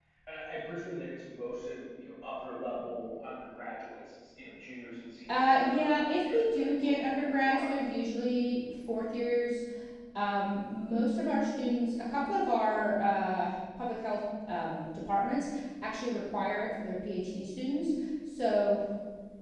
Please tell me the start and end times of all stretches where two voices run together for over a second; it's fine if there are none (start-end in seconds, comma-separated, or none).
5.3-7.7